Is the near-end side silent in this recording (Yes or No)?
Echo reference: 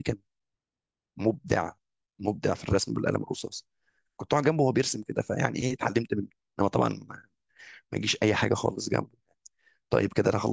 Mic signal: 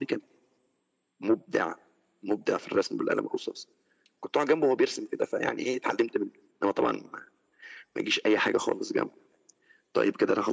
Yes